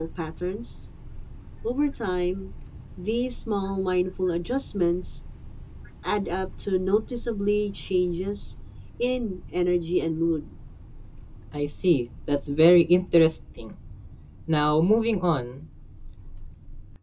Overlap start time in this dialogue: none

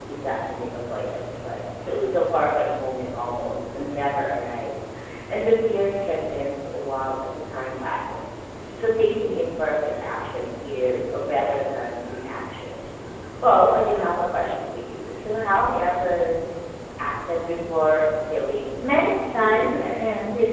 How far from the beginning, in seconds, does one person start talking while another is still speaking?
18.8 s

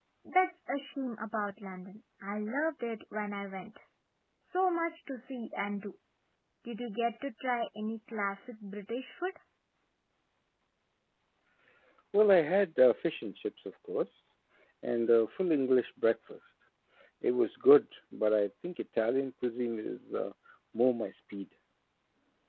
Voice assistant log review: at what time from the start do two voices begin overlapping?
none

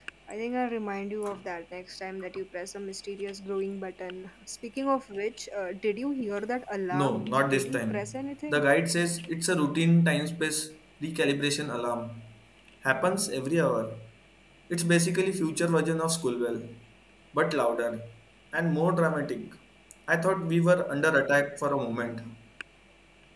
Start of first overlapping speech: 6.9 s

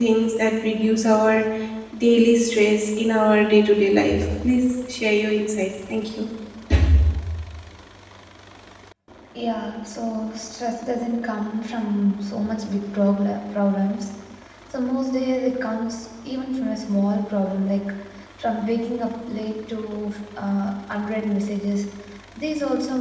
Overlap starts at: none

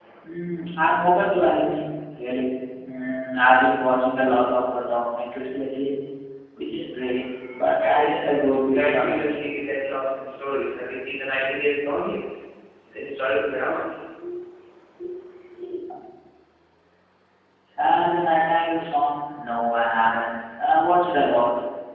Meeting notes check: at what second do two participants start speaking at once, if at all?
7.8 s

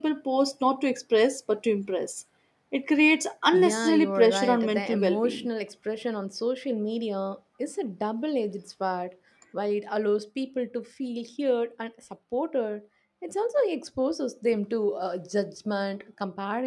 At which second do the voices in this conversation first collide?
3.5 s

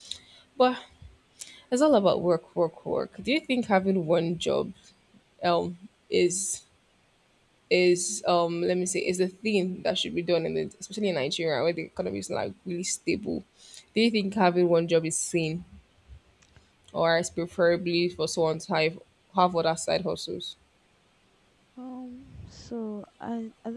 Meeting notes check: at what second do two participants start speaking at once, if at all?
none

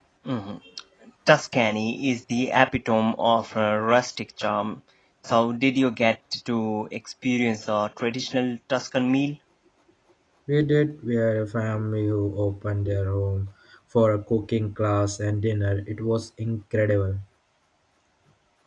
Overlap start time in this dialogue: none

